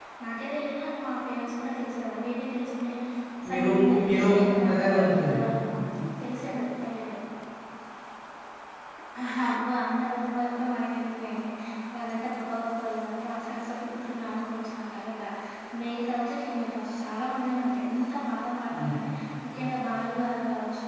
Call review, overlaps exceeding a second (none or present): present